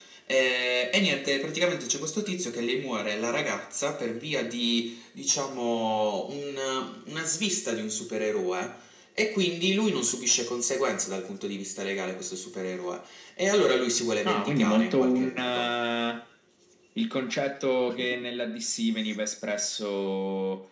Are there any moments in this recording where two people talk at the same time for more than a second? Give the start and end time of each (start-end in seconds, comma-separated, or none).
14.3-15.8